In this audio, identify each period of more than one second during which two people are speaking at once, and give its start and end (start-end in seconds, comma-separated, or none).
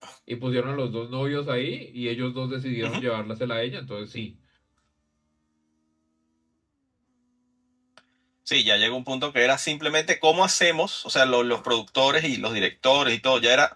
none